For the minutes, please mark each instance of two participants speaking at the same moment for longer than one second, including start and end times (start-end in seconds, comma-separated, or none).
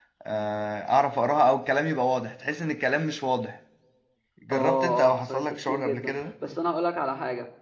4.5-6.2